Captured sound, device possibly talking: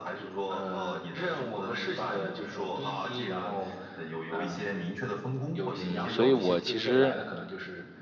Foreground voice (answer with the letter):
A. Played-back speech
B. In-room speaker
B